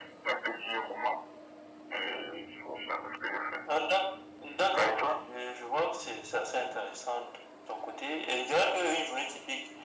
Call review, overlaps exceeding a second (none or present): none